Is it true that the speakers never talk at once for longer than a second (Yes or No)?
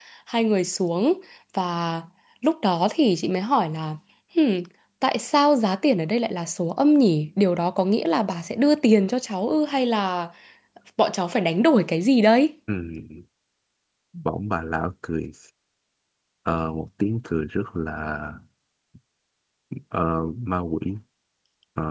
Yes